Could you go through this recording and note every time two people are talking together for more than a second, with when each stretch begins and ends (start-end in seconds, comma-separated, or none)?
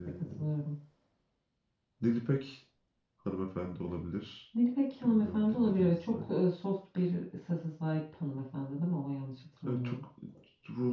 5.0-6.3